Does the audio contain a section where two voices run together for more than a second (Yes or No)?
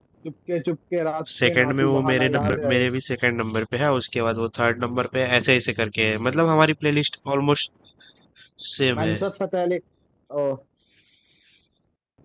Yes